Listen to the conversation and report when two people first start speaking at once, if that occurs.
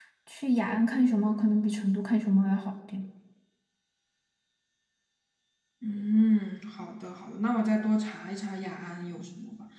none

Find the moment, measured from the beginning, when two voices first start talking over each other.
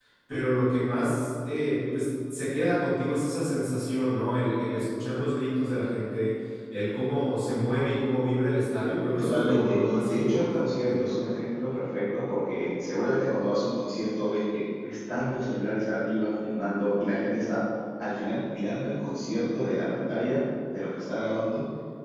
9.2 s

